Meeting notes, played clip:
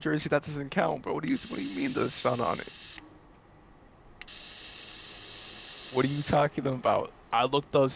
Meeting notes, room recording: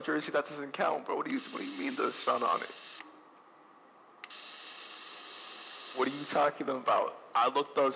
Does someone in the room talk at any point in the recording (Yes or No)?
No